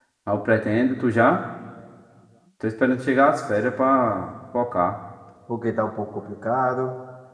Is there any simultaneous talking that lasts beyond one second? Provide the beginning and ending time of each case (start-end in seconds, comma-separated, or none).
none